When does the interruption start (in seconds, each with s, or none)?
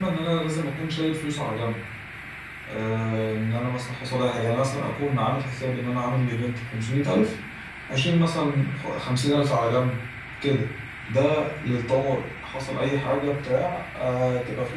none